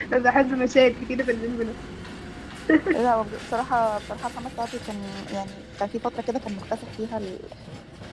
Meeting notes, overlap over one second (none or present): none